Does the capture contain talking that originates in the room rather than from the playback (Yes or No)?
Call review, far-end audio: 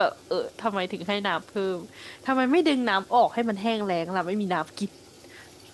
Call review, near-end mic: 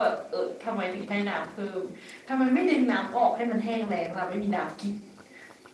No